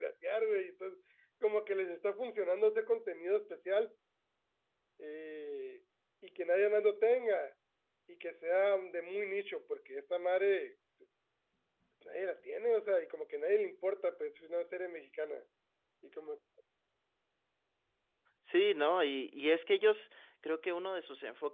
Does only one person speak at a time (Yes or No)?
Yes